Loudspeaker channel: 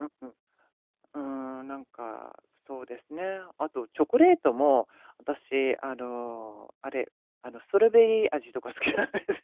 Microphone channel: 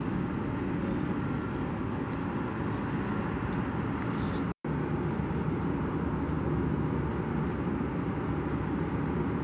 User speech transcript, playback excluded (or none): none